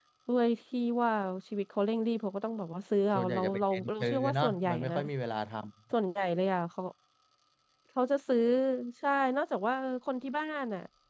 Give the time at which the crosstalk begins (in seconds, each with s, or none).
3.1 s